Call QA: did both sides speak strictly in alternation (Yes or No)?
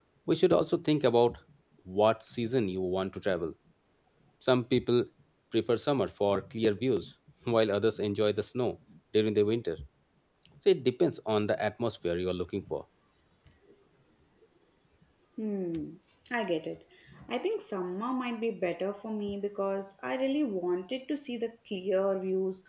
Yes